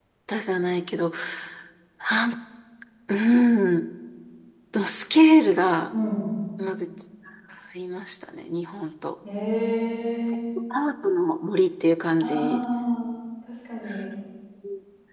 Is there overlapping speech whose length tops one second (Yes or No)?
No